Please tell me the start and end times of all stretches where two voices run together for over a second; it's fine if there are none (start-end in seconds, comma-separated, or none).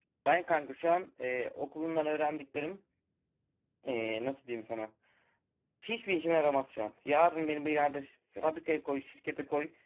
none